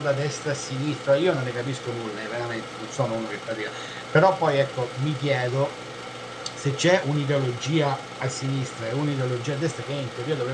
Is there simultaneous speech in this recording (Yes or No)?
No